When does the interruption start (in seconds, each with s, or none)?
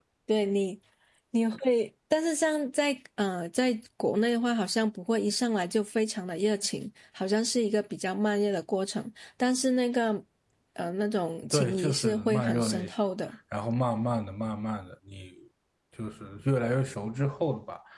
11.5 s